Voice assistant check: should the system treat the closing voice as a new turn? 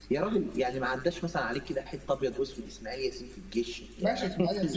Yes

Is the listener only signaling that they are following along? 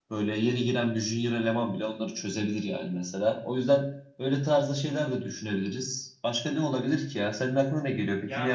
No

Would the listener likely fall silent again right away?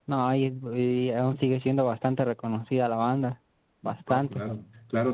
No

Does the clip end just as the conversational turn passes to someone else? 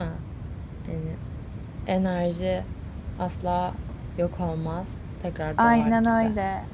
Yes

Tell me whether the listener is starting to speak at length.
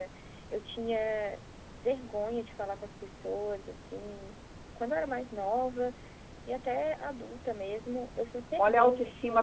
Yes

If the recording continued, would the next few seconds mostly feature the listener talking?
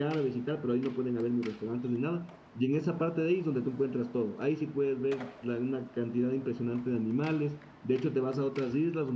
No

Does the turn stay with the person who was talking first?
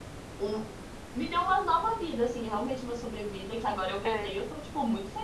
Yes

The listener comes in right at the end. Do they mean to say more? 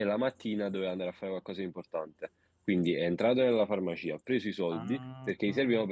No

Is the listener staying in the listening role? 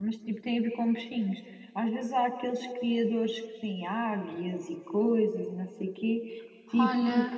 Yes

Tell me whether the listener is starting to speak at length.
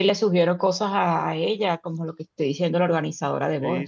Yes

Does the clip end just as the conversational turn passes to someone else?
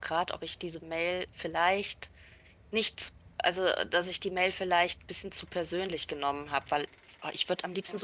No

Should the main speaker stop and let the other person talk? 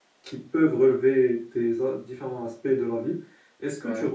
No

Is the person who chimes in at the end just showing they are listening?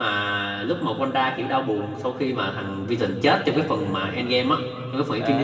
No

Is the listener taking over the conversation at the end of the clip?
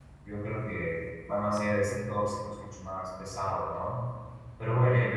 No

